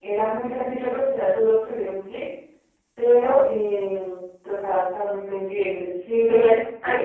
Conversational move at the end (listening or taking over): taking over